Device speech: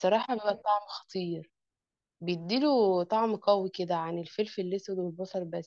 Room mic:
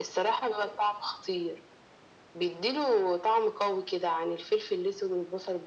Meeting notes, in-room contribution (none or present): none